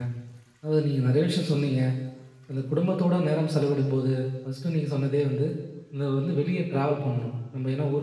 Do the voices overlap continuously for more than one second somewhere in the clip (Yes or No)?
No